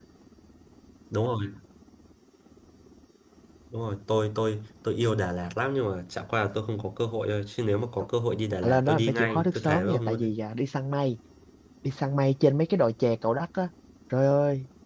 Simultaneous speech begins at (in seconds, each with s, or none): 8.6 s